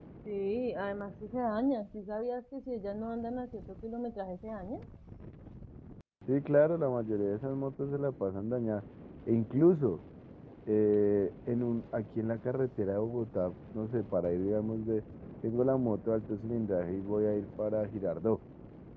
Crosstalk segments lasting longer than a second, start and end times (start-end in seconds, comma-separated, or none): none